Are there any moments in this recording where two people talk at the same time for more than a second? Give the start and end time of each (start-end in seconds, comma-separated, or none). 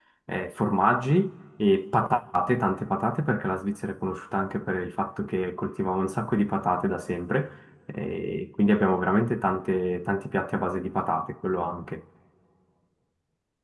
none